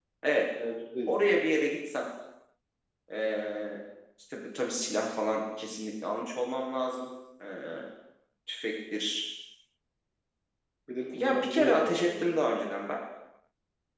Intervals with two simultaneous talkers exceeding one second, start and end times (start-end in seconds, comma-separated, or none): 11.1-12.4